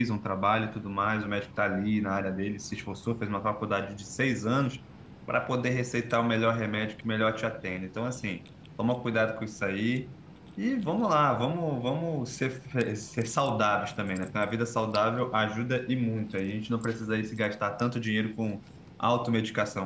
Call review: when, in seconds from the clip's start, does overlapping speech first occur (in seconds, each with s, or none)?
none